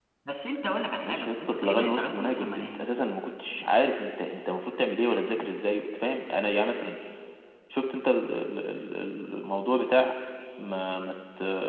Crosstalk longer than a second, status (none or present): present